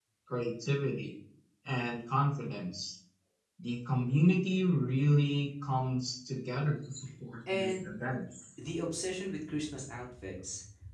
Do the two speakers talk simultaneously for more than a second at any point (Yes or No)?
No